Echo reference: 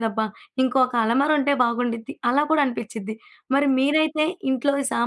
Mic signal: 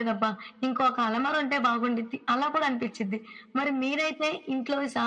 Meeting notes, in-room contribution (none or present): none